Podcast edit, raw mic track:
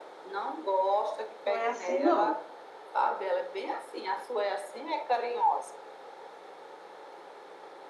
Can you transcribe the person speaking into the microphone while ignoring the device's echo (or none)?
não é assim, não.